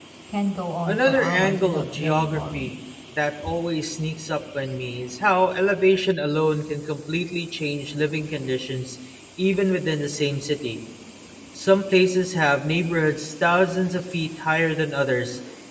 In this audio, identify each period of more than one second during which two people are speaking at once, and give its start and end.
0.9-2.7

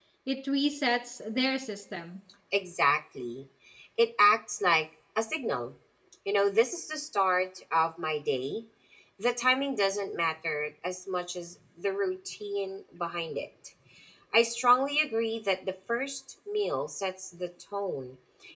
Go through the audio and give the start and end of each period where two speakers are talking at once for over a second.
none

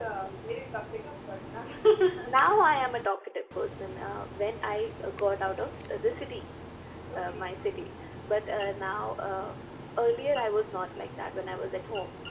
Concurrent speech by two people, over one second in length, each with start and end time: none

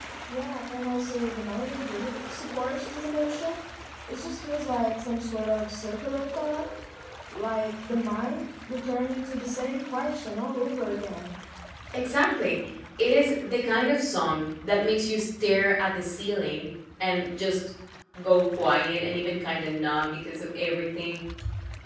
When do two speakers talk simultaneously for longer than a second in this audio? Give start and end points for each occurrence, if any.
none

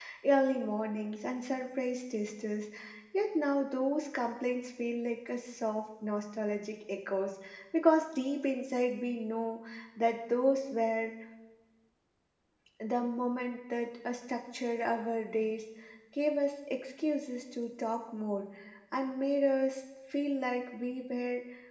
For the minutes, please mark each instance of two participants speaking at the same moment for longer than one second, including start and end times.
none

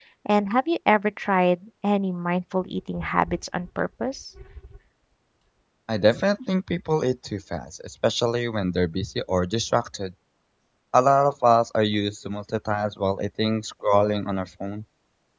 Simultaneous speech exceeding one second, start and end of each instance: none

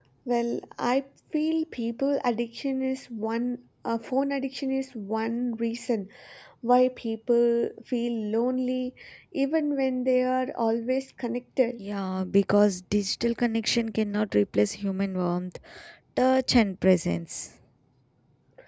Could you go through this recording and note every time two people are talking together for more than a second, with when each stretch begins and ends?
none

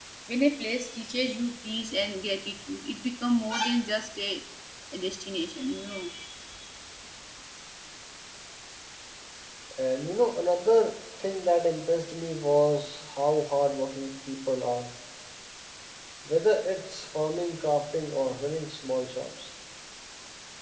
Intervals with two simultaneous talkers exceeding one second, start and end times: none

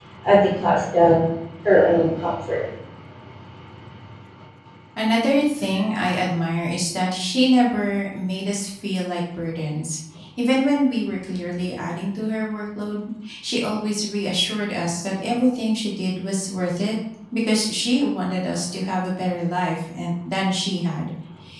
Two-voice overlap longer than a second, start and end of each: none

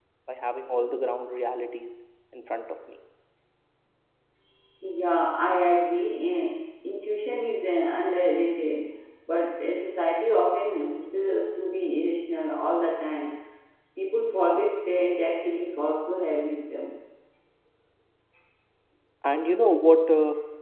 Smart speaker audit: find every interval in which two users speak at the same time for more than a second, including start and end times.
none

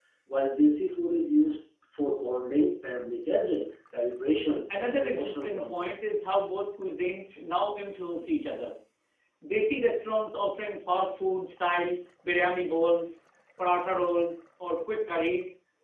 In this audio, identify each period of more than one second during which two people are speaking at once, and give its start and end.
4.5-5.9

